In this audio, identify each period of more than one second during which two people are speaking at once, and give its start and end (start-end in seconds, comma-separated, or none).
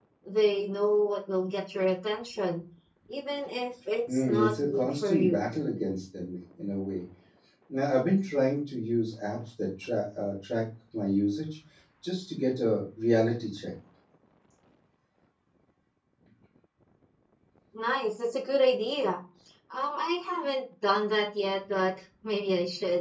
4.1-5.4